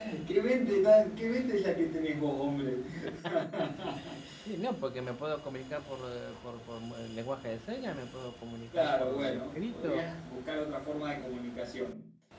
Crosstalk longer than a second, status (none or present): present